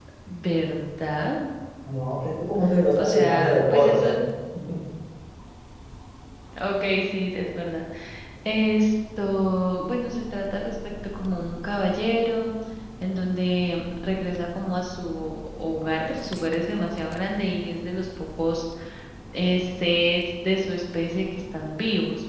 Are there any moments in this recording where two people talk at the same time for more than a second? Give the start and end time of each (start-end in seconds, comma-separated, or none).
3.0-4.2